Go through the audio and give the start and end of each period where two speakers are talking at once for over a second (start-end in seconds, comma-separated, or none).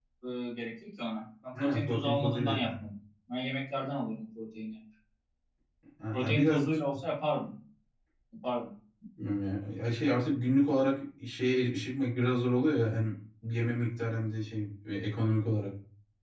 1.6-2.8